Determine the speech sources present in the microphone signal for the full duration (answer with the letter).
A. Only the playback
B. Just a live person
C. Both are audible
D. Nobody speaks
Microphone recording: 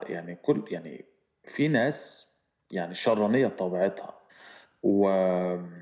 A